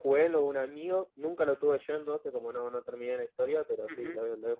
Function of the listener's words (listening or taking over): taking over